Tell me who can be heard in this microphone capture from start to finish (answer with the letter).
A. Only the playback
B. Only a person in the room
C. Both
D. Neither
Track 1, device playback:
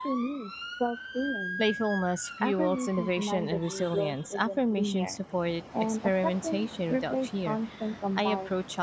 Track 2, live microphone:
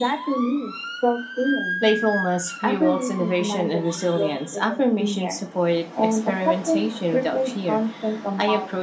A